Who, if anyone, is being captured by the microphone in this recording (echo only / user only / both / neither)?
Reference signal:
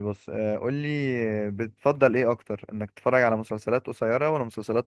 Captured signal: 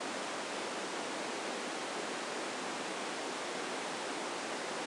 neither